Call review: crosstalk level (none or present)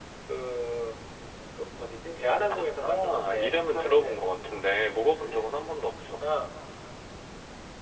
present